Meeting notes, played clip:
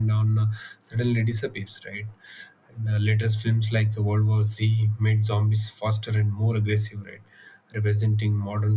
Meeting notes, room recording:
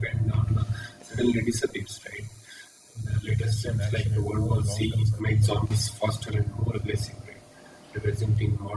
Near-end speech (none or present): present